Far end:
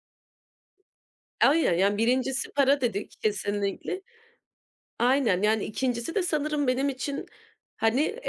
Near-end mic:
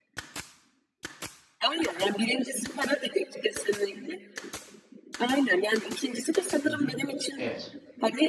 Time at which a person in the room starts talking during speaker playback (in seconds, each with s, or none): 6.6 s